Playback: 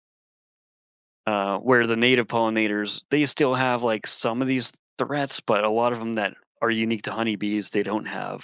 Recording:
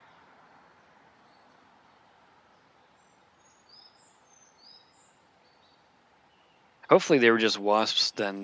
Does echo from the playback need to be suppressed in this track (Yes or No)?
No